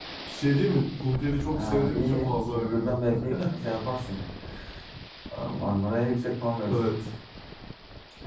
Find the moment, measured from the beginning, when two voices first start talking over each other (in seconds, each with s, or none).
1.5 s